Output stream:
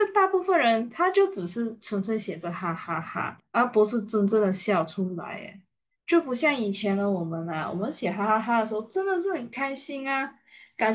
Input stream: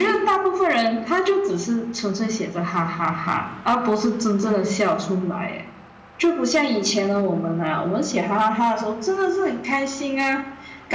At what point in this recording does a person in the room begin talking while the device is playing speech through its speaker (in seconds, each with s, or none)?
none